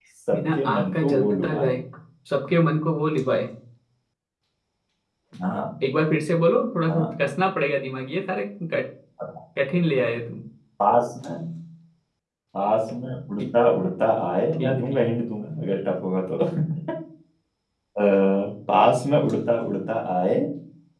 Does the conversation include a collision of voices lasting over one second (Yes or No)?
Yes